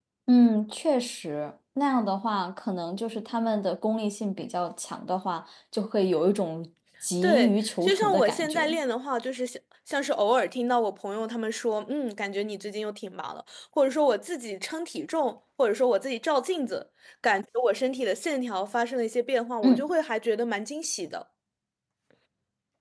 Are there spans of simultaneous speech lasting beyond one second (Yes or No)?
Yes